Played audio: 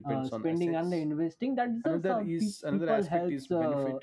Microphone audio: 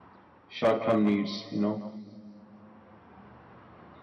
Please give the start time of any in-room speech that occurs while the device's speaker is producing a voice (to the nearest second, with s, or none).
0 s